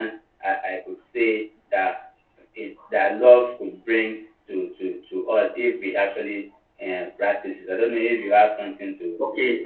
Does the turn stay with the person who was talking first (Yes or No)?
No